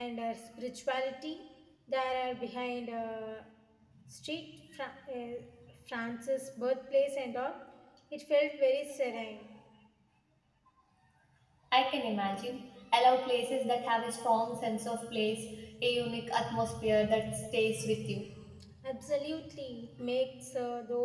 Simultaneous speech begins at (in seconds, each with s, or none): none